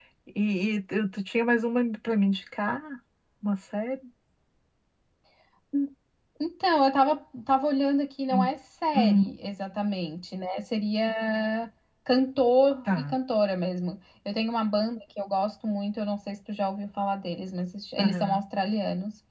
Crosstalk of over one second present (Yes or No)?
No